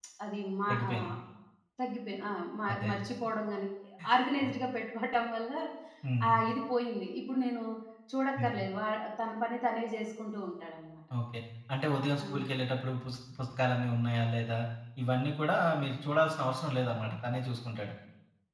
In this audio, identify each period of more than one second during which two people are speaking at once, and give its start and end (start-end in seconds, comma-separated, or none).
none